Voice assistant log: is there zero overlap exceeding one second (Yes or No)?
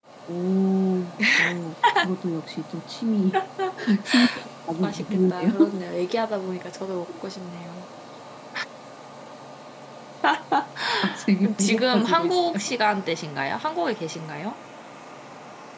No